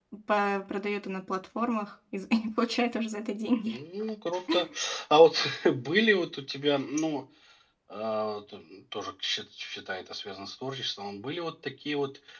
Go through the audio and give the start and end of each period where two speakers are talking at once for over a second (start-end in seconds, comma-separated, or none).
none